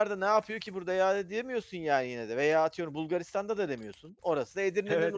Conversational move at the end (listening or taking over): taking over